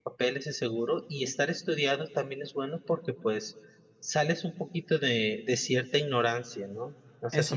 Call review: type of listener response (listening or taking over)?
listening